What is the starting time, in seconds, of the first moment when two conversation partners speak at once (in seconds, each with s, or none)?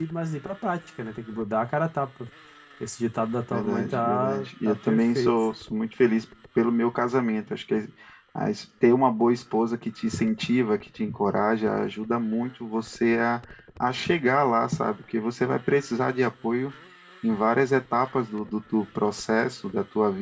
3.5 s